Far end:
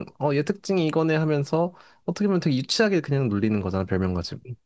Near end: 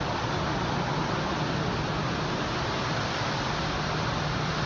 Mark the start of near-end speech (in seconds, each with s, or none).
none